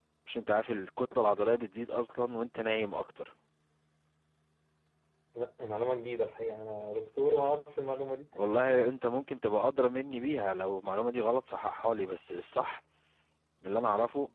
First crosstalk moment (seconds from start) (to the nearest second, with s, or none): none